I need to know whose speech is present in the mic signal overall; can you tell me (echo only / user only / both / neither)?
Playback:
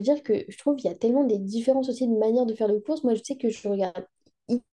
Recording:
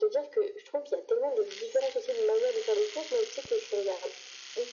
echo only